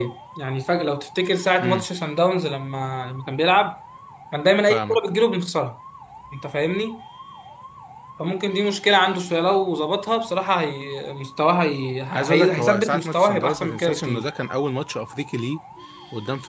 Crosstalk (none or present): present